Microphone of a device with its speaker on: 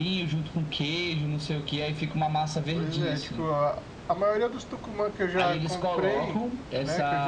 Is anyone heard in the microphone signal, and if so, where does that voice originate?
both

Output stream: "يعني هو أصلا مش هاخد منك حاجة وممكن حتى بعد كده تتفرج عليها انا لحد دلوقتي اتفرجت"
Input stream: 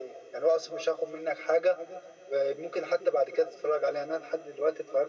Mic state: echo only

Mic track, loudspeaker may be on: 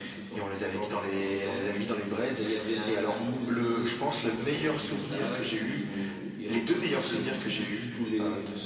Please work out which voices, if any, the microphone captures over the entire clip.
echo only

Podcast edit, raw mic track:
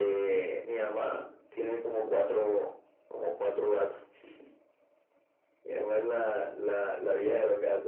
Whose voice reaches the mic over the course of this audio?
echo only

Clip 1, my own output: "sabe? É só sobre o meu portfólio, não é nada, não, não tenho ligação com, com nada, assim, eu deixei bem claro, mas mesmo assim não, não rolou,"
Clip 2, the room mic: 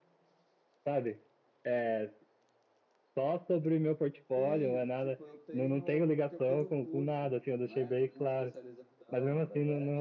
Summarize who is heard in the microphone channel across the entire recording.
both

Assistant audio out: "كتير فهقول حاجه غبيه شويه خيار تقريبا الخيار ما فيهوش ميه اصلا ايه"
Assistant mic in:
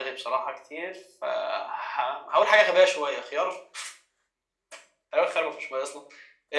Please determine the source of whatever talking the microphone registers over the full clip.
echo only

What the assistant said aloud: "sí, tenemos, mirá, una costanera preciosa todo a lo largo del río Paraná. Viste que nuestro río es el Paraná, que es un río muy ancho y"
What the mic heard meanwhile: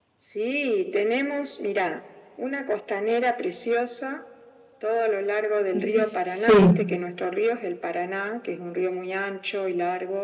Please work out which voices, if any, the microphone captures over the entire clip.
both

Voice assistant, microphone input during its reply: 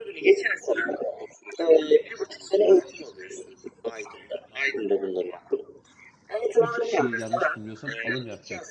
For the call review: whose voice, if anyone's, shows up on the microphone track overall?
both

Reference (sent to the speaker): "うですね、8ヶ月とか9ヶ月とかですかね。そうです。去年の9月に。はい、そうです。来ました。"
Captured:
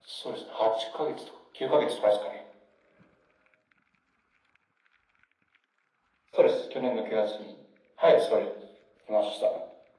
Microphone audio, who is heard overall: echo only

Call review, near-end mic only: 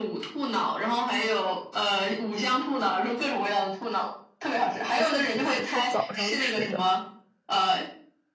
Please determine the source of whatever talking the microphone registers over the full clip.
both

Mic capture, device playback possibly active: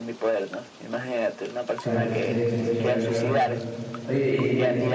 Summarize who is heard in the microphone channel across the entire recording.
both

